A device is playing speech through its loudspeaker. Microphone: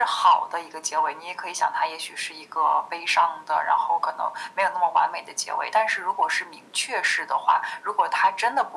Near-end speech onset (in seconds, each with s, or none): none